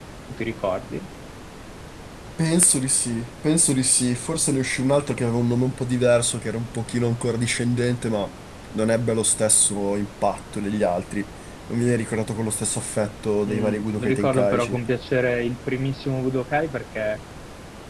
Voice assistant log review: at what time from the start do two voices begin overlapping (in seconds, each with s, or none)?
13.5 s